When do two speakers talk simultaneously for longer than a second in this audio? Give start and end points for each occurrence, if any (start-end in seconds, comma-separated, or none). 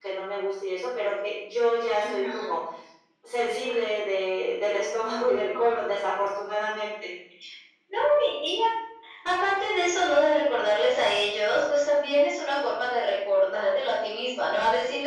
none